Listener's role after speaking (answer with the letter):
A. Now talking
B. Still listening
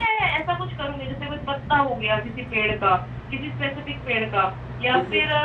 B